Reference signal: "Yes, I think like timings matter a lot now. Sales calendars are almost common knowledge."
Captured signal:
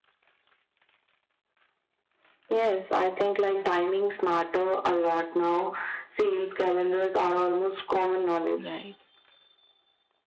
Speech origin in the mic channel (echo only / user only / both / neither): both